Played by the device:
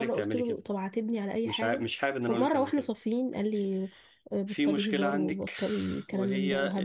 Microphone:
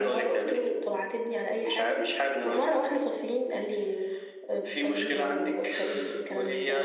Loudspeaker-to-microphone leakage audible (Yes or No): Yes